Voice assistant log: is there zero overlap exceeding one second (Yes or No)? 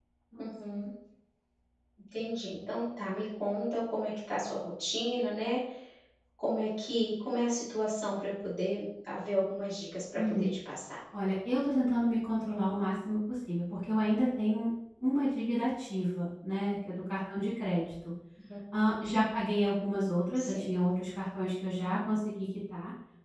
Yes